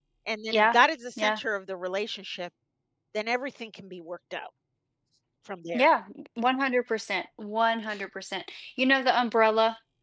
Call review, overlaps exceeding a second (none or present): none